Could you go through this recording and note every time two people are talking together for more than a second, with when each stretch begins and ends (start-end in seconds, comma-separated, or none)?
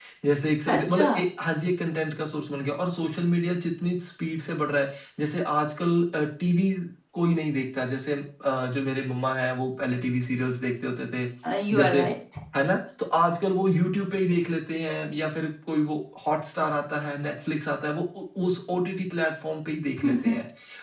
none